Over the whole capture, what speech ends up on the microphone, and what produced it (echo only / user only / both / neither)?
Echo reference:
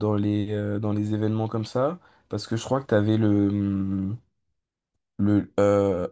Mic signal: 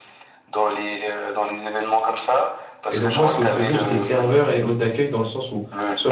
both